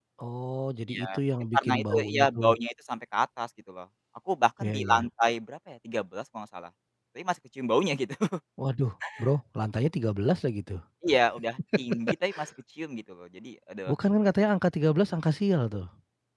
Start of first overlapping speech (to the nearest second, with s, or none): 1 s